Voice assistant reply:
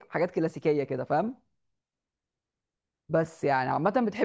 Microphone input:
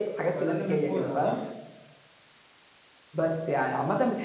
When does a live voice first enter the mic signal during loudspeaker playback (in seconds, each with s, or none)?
0.4 s